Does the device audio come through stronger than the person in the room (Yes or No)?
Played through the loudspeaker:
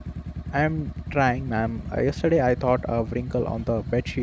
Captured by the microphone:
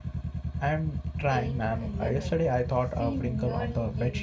Yes